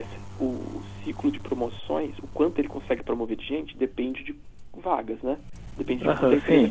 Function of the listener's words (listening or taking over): taking over